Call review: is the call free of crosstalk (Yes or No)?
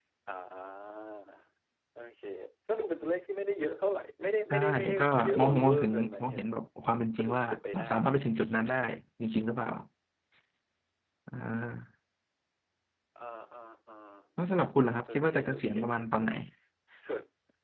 No